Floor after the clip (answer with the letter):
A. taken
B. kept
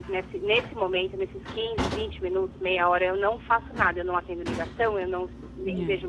B